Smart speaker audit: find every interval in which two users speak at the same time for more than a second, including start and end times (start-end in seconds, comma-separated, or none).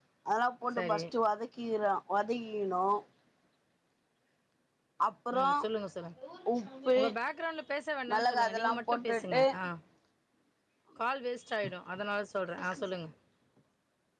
8.1-9.4